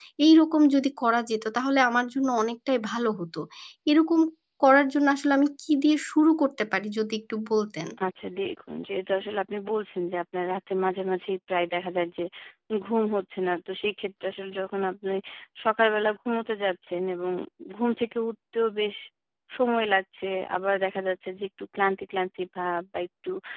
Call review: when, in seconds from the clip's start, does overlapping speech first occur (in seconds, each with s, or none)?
none